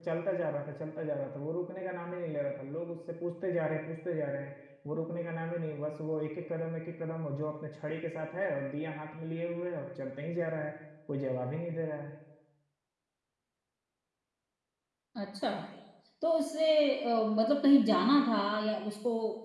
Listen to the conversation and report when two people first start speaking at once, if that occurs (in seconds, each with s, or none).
none